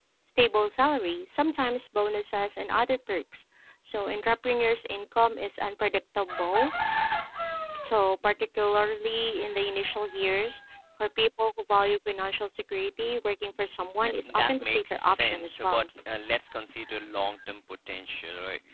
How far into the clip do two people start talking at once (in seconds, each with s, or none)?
14.0 s